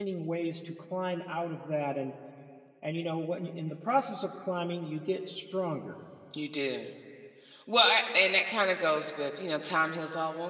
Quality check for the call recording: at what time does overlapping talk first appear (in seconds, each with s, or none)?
none